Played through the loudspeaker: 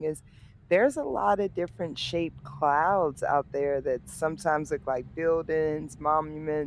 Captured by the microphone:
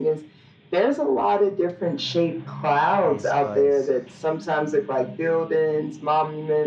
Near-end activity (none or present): present